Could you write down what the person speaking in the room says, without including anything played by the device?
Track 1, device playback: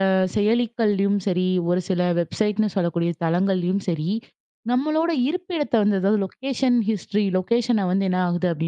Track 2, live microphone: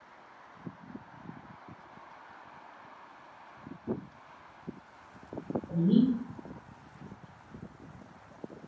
சரி

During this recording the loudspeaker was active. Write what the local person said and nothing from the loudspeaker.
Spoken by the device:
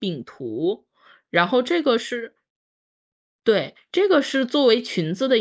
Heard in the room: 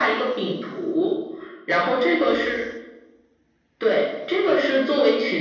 none

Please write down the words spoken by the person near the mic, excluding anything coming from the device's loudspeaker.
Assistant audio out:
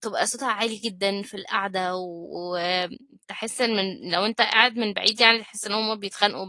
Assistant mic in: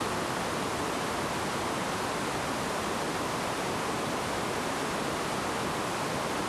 none

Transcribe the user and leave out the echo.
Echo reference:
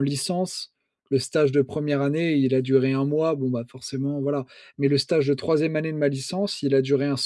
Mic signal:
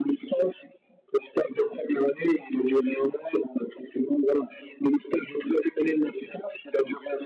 none

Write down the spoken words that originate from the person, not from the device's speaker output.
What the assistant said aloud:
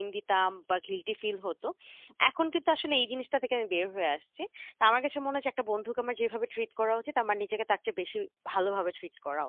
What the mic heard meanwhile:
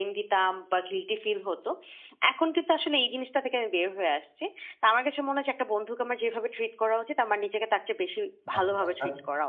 বাহ! চমৎকার।

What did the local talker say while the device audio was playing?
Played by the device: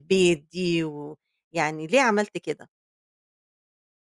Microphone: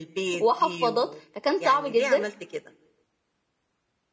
وحفاضات، فكان صعب جدًا،

